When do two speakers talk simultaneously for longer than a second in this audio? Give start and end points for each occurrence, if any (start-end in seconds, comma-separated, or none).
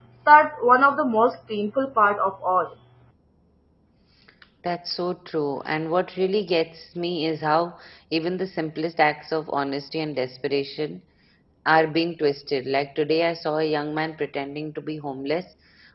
none